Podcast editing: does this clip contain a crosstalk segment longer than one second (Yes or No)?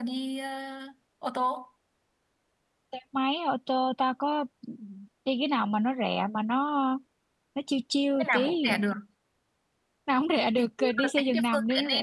Yes